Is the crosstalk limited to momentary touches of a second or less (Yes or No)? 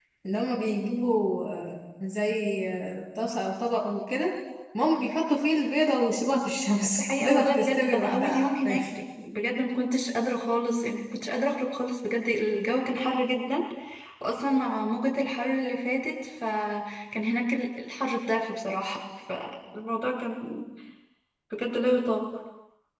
No